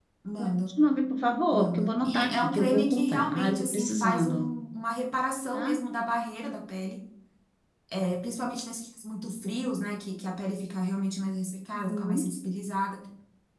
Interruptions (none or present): present